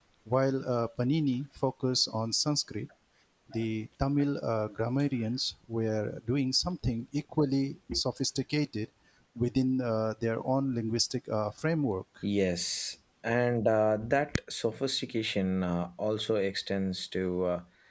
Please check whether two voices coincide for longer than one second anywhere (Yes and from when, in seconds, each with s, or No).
No